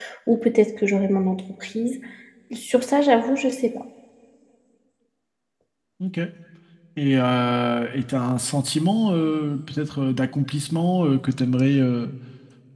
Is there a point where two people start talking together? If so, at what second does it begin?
none

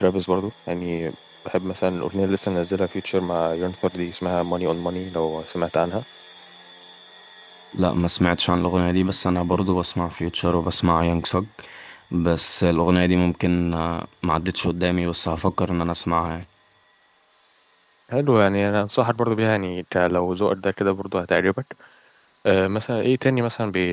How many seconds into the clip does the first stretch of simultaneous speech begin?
none

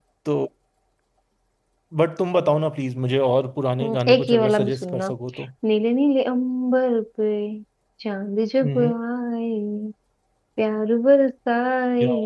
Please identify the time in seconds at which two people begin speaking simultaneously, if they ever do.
4 s

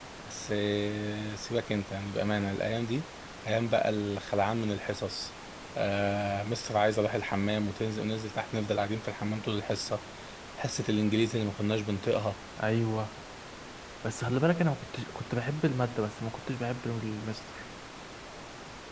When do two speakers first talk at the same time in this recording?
none

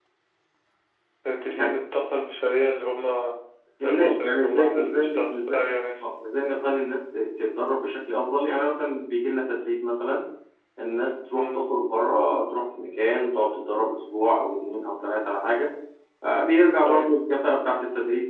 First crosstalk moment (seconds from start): 4 s

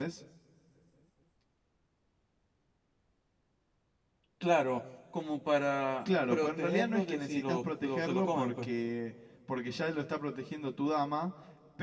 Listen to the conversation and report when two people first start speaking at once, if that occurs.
6 s

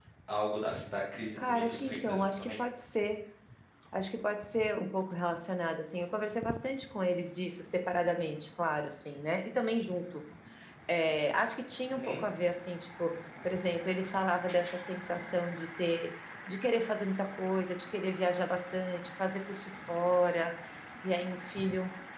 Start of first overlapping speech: 1 s

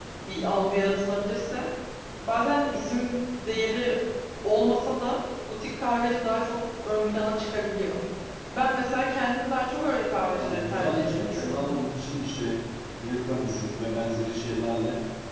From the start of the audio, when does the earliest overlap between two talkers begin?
10 s

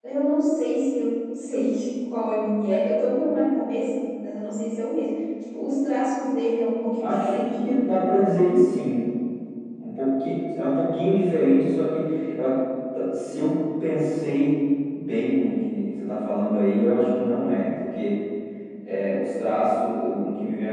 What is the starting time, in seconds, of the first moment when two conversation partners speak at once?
7 s

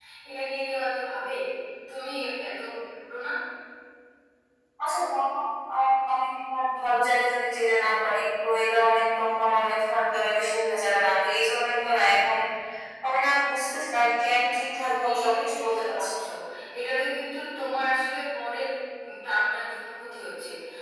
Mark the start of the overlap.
15 s

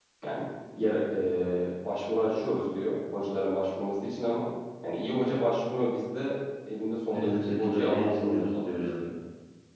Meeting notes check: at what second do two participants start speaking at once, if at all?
7 s

